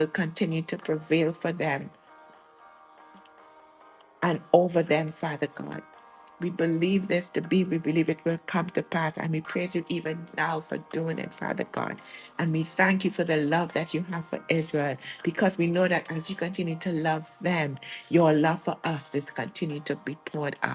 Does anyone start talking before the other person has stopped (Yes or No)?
No